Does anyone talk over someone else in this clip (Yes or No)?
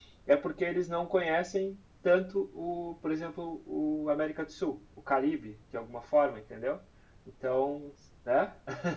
No